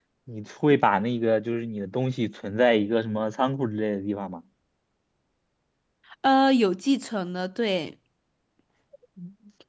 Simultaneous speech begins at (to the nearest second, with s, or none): none